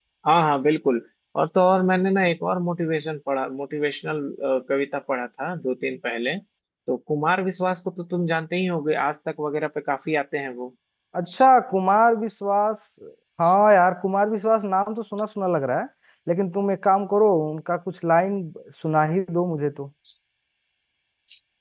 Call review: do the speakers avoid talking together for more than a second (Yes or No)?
Yes